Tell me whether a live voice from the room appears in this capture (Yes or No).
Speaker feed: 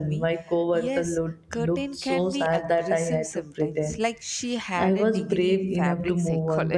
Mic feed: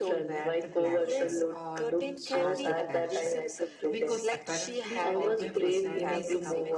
Yes